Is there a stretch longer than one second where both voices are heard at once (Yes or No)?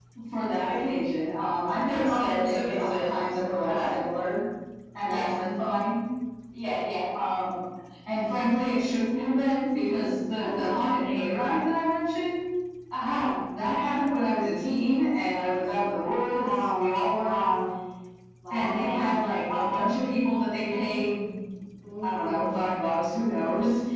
Yes